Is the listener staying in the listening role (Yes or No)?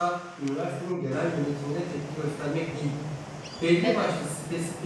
Yes